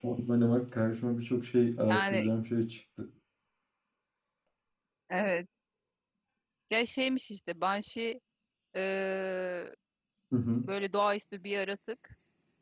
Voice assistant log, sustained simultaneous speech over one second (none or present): none